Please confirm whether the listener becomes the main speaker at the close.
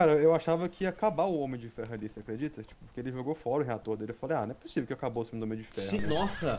Yes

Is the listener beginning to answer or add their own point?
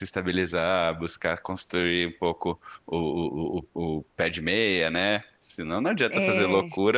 No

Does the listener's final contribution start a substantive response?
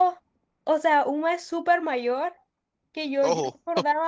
No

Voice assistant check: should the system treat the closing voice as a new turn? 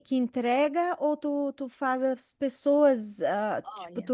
No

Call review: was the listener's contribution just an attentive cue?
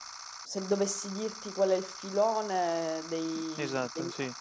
Yes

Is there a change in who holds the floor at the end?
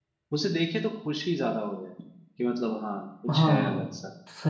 Yes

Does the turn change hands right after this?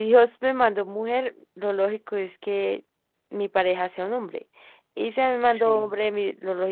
No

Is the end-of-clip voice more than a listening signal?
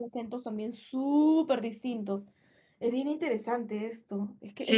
Yes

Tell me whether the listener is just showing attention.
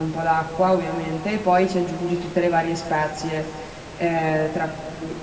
Yes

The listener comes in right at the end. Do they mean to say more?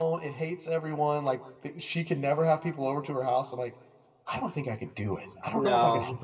No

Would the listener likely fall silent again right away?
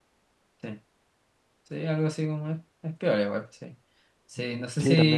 No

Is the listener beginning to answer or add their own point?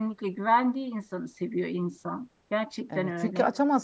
Yes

